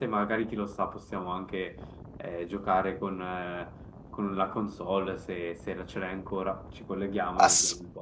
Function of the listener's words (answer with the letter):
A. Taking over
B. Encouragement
A